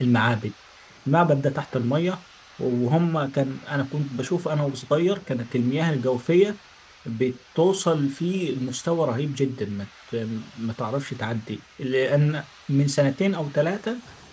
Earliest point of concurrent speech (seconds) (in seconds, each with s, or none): none